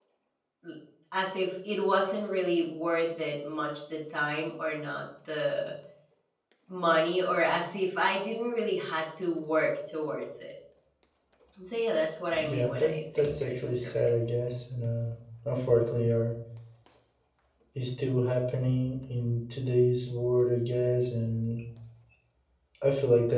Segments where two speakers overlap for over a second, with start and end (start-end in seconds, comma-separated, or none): 12.4-14.1